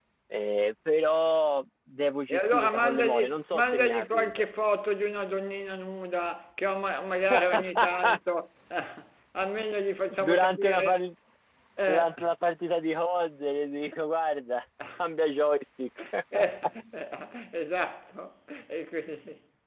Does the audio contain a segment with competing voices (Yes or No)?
Yes